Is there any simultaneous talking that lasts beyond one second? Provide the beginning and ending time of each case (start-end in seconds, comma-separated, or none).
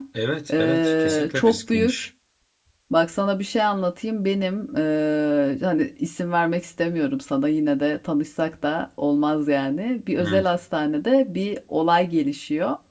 0.5-2.1